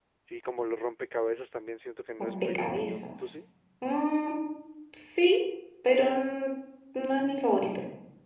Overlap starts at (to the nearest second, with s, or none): 2 s